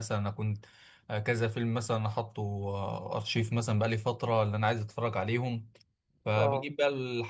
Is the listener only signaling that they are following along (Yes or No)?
Yes